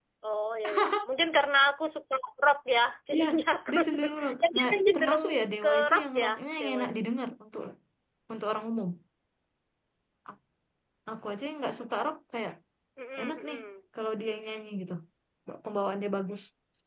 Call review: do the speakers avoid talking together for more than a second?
No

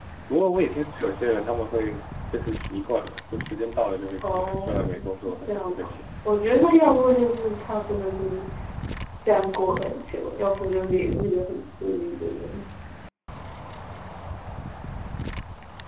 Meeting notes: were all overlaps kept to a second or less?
No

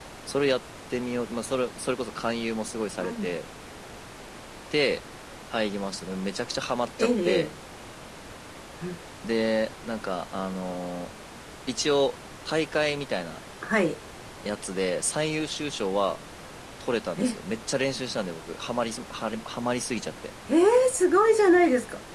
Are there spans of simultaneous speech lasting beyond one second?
No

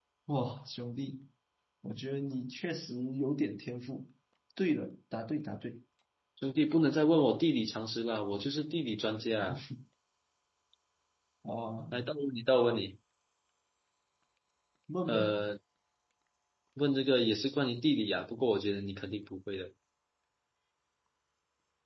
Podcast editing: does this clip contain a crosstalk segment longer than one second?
No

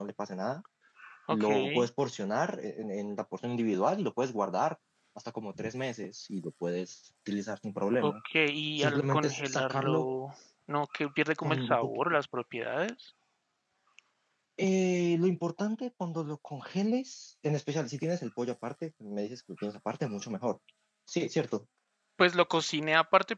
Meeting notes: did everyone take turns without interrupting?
No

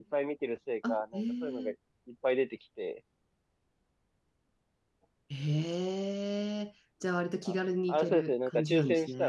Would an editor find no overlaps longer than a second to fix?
No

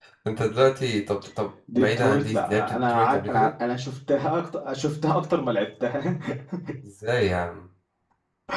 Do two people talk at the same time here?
Yes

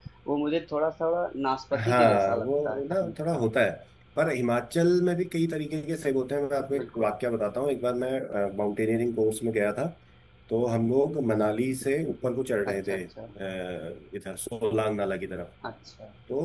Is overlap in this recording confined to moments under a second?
No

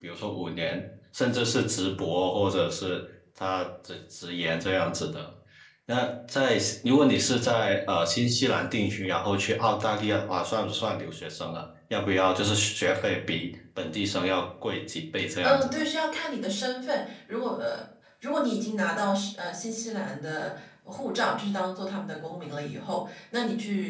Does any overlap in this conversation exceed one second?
No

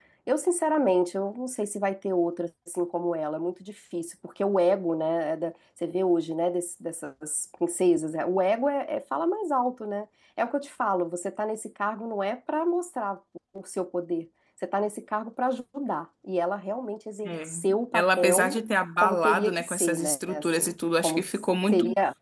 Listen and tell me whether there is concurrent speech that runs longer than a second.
Yes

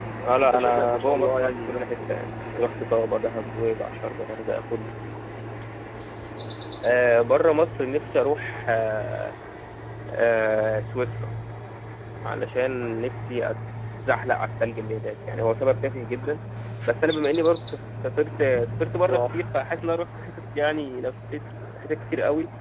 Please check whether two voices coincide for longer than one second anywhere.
Yes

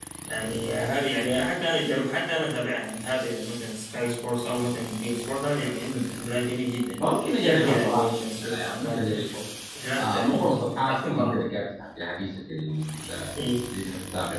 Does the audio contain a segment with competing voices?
Yes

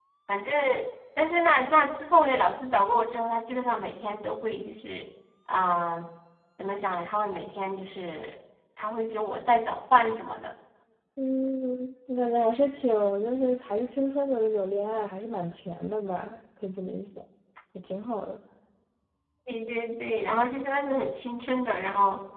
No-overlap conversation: Yes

